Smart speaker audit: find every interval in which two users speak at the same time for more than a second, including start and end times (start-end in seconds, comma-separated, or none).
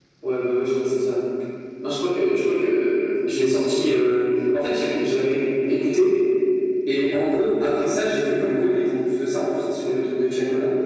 none